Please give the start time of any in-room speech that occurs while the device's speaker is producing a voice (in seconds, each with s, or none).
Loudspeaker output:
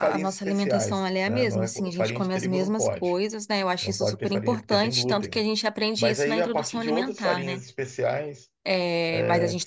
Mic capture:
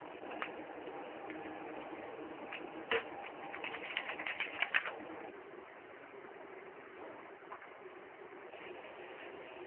none